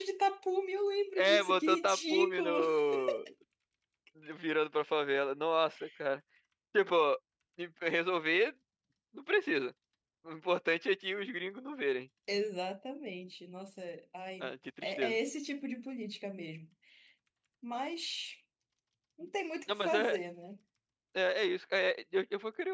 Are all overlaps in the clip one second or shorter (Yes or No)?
No